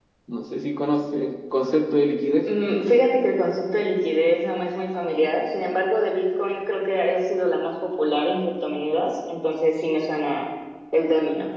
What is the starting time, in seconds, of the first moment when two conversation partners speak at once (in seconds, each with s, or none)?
none